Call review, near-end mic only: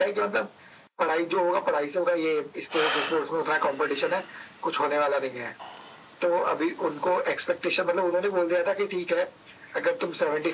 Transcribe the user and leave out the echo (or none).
none